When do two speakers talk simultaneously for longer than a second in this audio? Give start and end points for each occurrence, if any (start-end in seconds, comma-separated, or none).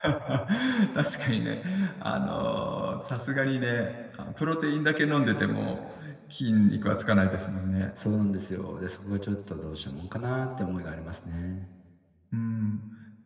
none